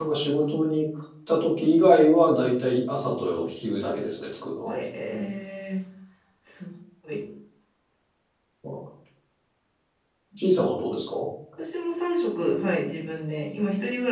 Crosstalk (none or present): none